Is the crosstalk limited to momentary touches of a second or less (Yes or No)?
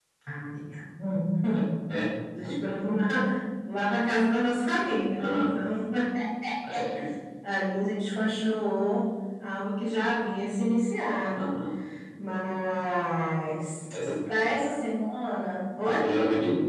Yes